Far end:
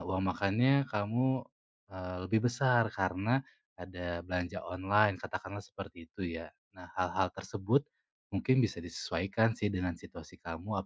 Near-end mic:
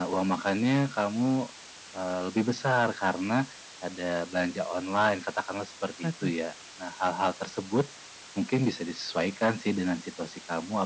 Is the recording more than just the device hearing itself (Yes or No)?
Yes